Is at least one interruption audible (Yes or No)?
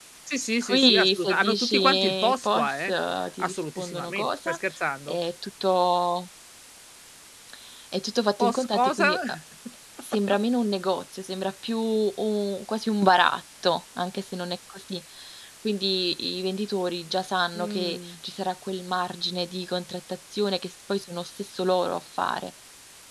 Yes